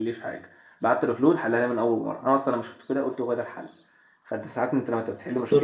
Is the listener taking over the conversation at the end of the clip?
No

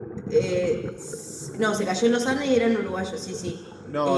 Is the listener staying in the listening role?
No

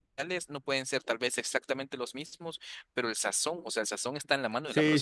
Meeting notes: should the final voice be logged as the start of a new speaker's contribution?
Yes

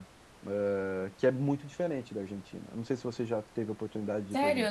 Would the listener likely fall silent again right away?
No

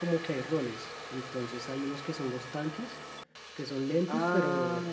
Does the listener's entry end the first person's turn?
No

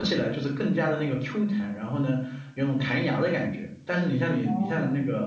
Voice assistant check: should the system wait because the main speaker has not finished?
Yes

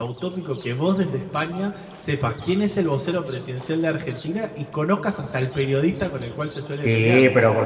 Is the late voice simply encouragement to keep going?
No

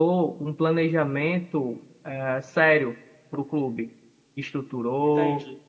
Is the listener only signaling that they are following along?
Yes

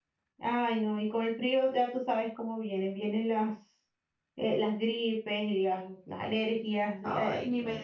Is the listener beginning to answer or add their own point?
Yes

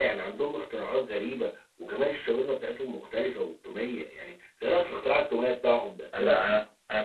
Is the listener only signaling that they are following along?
No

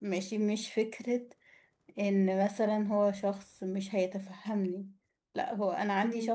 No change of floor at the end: Yes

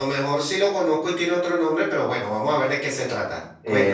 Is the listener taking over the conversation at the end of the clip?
Yes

